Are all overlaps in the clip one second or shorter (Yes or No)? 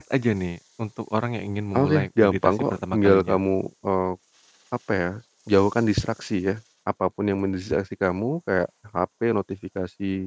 No